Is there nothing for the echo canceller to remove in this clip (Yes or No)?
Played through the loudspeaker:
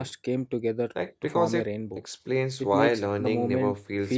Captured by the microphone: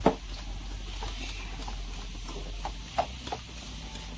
Yes